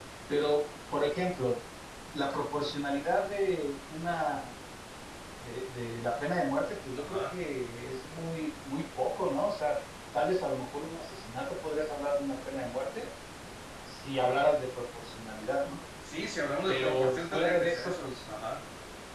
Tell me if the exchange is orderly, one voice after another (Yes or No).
No